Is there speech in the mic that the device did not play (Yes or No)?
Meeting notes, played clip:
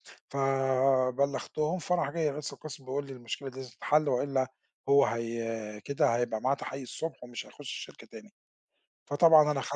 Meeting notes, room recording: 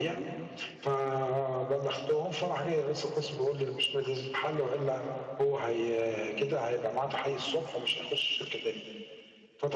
No